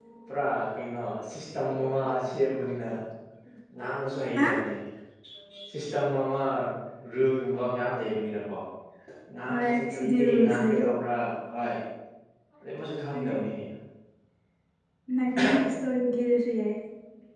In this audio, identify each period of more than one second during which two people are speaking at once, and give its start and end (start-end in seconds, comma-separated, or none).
9.5-10.8